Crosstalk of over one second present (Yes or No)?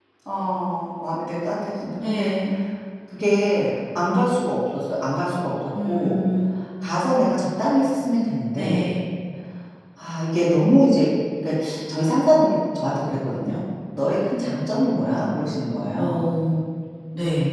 No